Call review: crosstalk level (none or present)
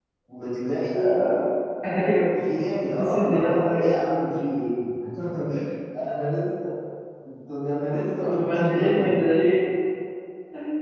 present